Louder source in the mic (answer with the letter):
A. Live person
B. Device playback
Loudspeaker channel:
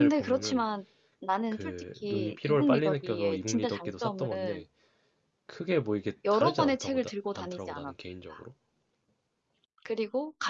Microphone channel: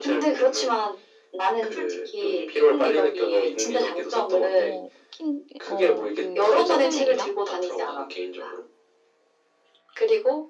B